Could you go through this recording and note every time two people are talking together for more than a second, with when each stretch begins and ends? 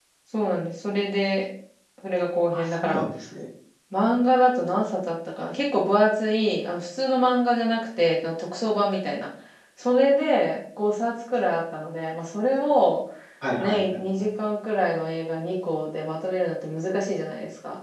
none

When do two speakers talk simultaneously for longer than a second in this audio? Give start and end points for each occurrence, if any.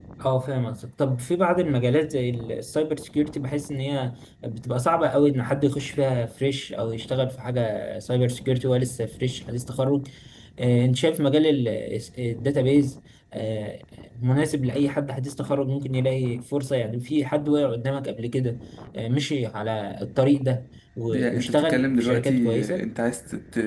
21.1-22.9

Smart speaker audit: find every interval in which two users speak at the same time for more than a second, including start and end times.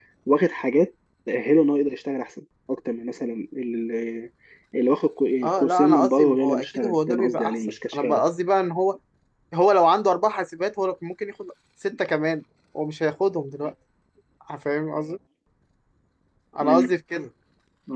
5.4-8.2

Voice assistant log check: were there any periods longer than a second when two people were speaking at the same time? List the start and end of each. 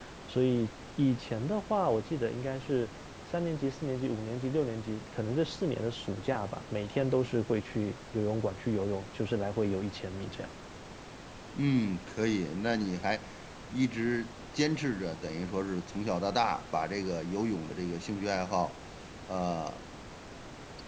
none

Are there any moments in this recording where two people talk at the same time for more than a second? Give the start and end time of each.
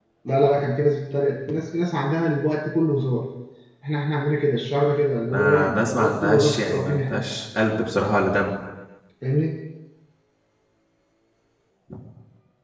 5.3-7.2

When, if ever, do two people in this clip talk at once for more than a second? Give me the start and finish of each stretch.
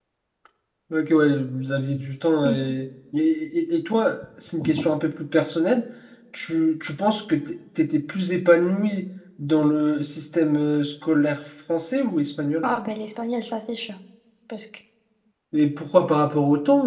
none

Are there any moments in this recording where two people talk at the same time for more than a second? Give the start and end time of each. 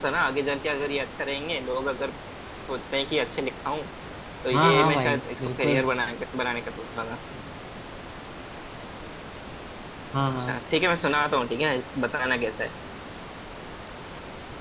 4.5-5.8

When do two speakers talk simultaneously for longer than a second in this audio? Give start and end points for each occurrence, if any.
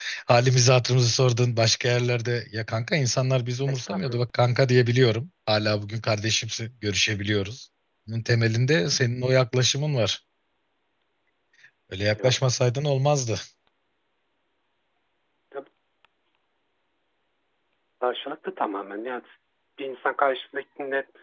none

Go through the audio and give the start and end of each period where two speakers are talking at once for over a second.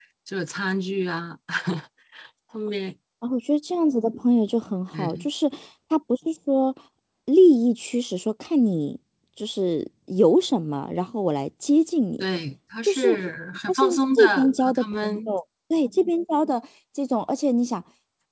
13.7-15.3

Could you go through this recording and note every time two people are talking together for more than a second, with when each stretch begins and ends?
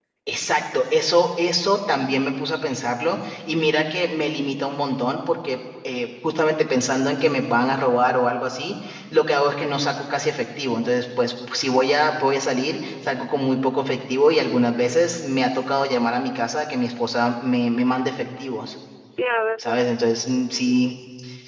none

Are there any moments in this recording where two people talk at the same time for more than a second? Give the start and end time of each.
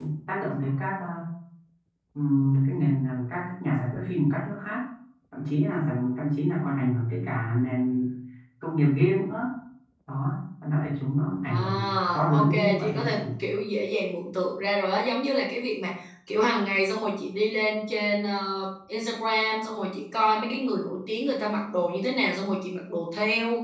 11.4-13.2

